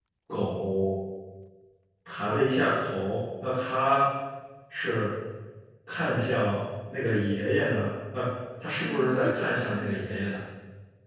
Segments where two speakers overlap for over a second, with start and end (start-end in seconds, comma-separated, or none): 8.8-10.4